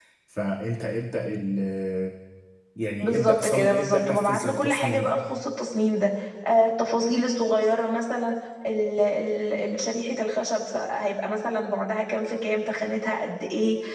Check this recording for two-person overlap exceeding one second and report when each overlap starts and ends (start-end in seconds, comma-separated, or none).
3.0-5.1